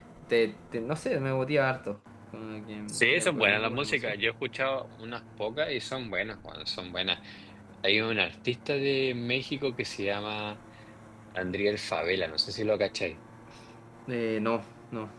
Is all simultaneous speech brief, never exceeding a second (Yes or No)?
No